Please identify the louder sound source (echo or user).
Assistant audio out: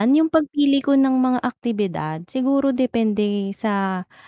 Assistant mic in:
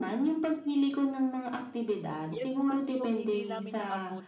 echo